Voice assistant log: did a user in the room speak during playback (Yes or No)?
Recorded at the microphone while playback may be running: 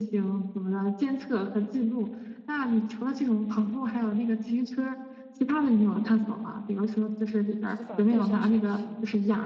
Yes